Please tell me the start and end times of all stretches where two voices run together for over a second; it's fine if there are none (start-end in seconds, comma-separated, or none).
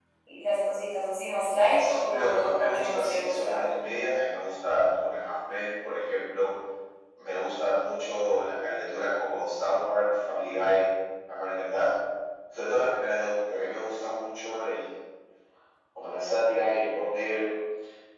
1.8-3.7